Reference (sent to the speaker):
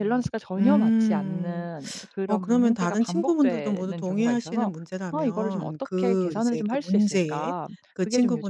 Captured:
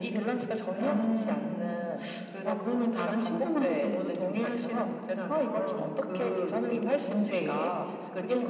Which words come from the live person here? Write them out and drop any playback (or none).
none